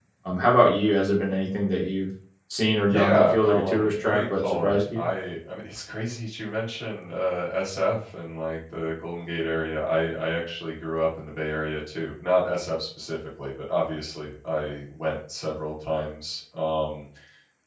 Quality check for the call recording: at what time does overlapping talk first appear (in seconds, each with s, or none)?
2.9 s